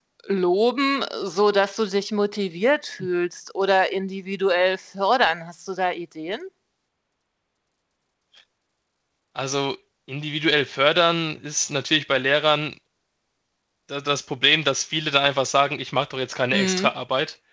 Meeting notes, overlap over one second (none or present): none